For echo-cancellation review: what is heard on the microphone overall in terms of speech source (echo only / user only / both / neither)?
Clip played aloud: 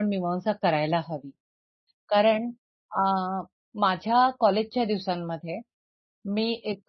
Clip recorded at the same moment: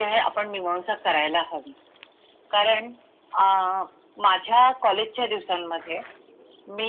echo only